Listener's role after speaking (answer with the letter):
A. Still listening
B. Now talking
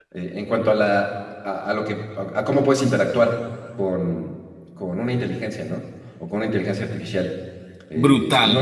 B